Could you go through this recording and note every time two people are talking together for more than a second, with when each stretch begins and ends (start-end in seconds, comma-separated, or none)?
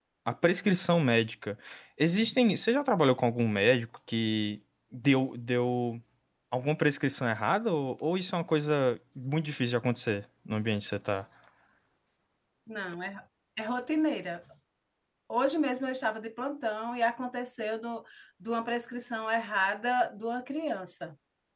none